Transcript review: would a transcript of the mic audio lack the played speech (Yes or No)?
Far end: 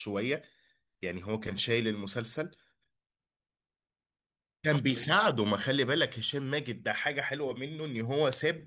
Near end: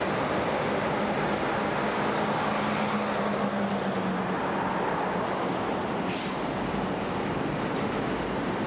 Yes